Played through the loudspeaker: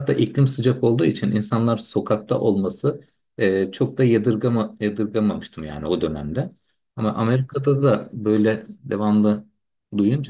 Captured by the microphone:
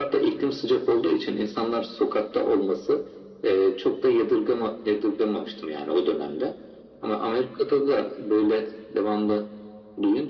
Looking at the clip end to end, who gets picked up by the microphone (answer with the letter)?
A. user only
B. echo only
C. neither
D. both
B